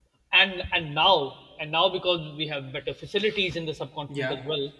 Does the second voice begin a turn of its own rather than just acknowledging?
No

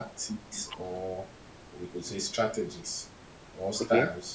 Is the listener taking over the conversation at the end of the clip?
No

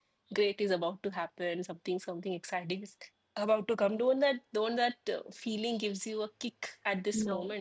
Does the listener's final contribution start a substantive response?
Yes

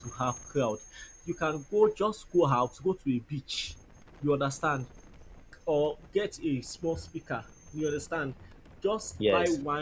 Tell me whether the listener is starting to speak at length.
No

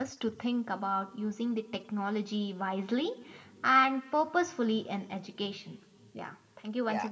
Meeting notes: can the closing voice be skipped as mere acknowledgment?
No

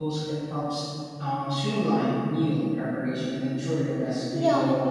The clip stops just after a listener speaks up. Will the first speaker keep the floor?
No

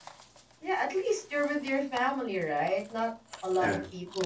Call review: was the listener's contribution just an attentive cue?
Yes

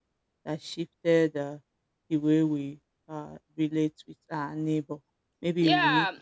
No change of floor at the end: No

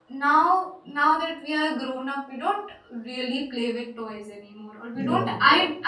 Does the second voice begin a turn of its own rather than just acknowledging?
No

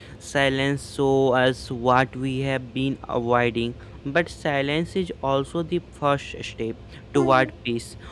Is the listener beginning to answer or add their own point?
No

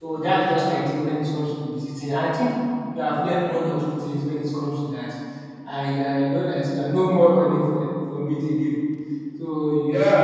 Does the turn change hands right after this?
Yes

